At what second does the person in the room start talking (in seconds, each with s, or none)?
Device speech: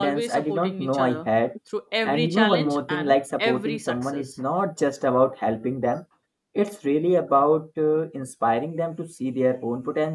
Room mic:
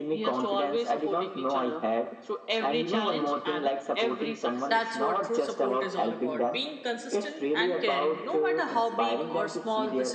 4.7 s